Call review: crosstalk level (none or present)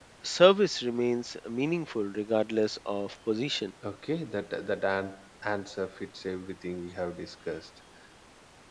none